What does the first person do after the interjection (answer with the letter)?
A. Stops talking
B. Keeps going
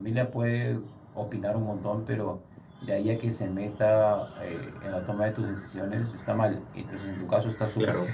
B